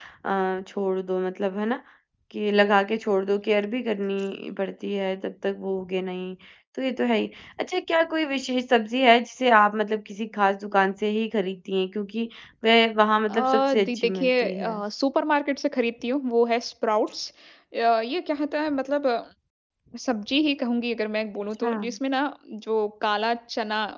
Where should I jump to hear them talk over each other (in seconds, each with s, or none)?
13.3 s